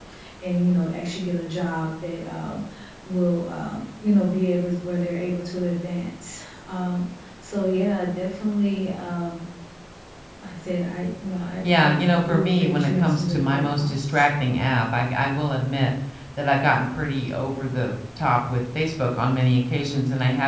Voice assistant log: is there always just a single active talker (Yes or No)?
No